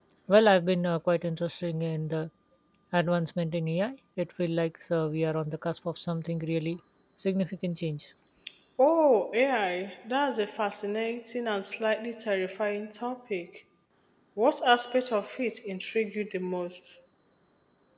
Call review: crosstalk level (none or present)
none